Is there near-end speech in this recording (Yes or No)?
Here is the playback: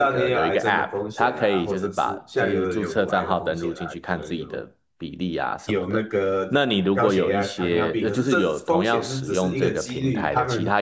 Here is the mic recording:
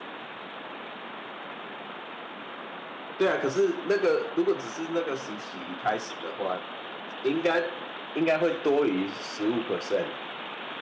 Yes